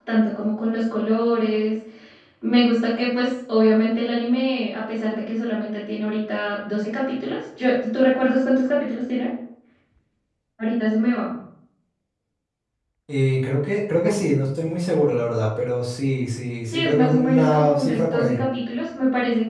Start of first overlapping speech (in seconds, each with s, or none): 16.7 s